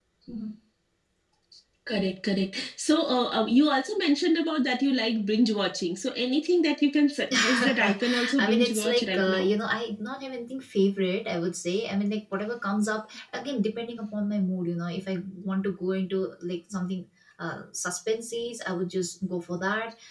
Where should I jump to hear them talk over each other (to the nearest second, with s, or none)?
7 s